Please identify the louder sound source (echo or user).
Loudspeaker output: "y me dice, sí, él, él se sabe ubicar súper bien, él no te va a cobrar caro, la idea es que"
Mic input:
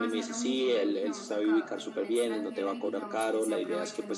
echo